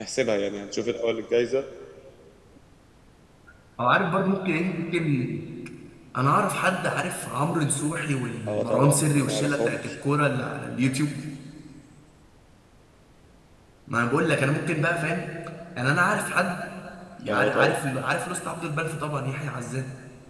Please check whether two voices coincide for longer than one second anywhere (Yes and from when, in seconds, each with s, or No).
Yes, from 8.5 s